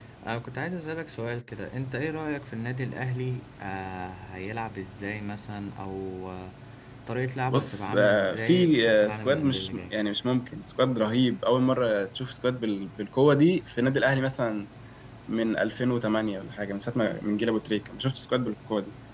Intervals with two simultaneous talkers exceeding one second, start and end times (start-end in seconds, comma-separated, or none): 7.5-9.9